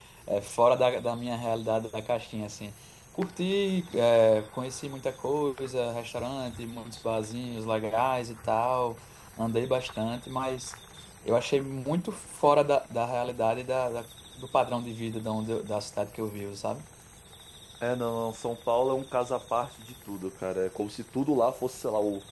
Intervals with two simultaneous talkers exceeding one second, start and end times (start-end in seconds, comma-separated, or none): none